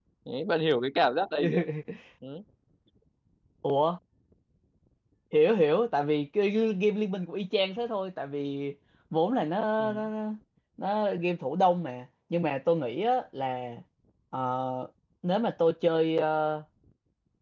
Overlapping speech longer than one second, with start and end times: none

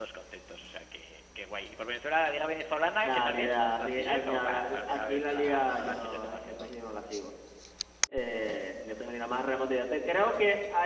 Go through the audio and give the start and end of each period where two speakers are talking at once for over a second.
3.0-6.7

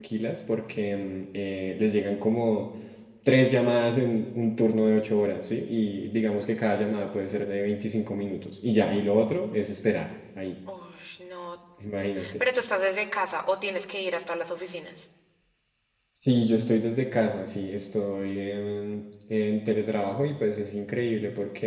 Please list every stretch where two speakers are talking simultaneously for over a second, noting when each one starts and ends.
none

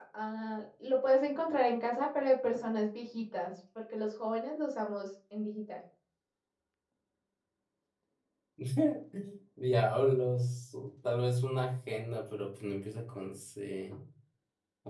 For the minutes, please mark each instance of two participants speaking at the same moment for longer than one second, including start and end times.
none

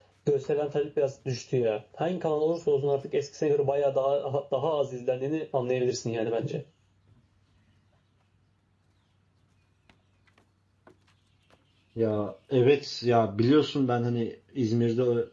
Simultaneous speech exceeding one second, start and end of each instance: none

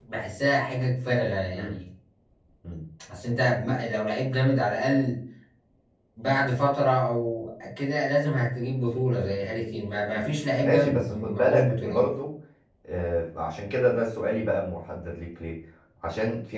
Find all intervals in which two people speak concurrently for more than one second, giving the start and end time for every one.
10.6-12.1

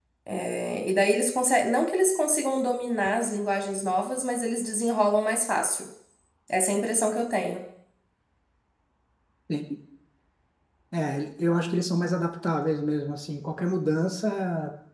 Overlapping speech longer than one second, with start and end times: none

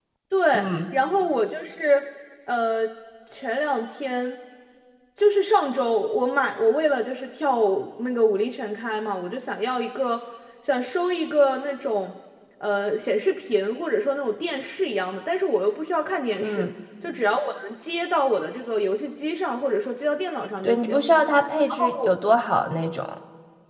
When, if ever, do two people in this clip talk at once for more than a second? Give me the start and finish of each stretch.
none

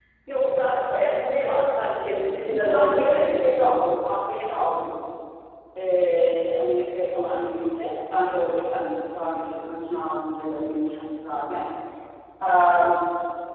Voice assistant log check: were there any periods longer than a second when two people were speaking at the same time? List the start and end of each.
2.5-4.0

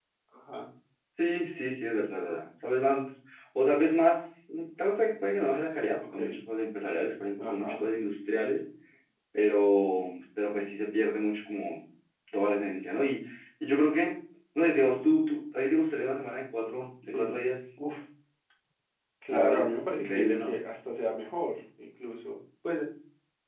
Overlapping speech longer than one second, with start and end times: 19.3-20.6

